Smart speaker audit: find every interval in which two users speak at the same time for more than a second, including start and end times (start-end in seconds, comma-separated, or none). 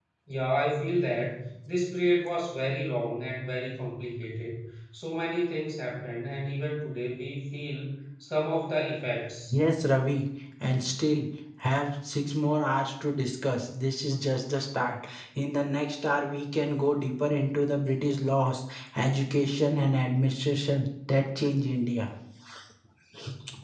none